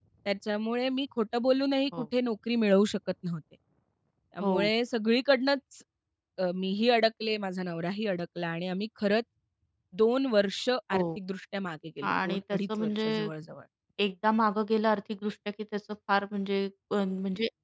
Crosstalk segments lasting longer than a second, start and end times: 12.0-13.3

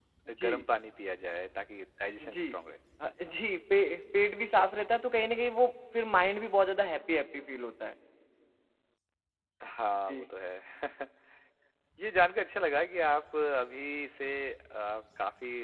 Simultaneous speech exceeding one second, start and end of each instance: none

